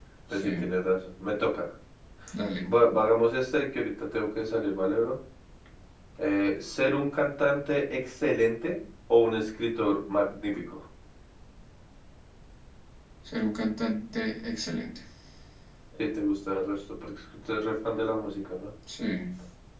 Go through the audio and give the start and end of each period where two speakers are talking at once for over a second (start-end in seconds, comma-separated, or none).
none